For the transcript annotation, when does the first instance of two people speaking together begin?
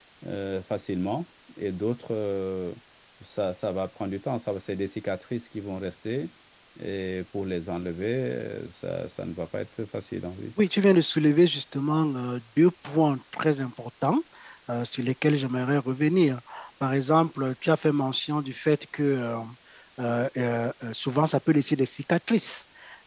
none

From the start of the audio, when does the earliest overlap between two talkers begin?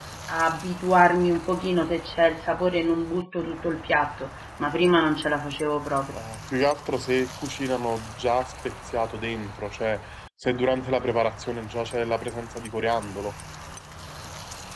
none

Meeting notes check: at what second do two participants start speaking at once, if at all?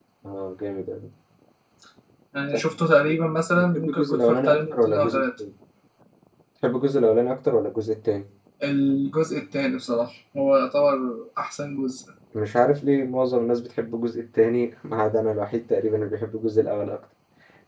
3.5 s

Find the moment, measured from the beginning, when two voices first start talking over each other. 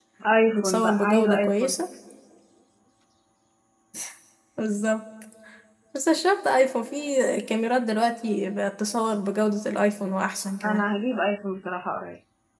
0.5 s

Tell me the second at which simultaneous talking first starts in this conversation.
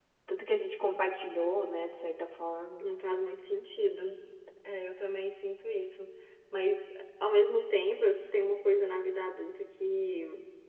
none

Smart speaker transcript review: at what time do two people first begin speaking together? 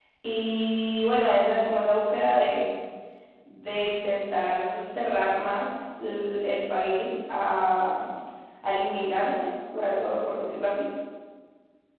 none

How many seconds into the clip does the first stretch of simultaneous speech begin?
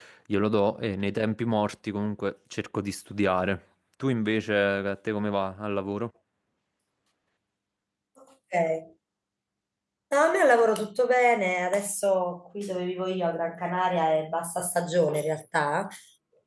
none

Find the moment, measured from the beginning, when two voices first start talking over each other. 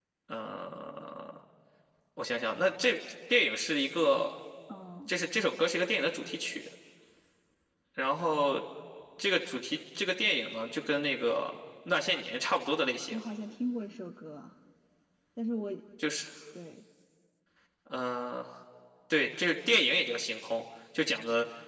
none

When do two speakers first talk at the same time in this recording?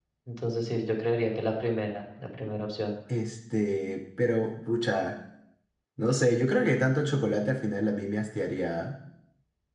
none

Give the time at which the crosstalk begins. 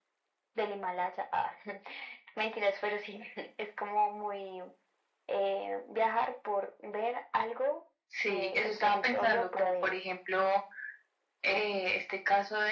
8.1 s

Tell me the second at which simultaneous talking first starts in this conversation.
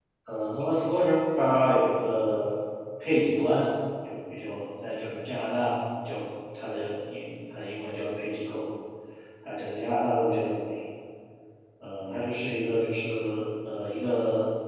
none

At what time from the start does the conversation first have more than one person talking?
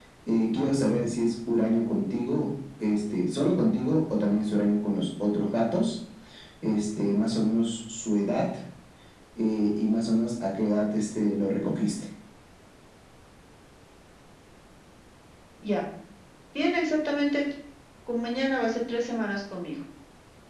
none

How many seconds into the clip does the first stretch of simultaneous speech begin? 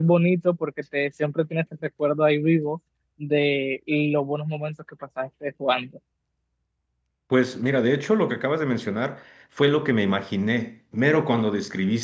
none

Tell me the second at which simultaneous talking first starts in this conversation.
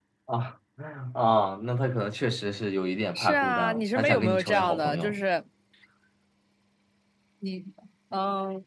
3.1 s

